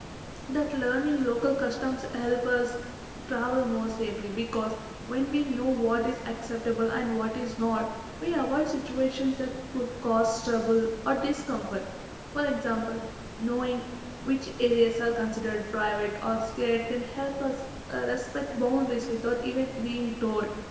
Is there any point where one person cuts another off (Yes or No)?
No